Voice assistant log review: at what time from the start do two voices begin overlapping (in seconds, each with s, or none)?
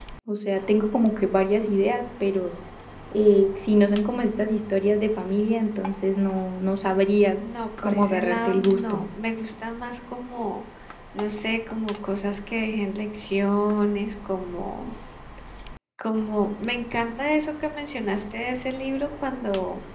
7.8 s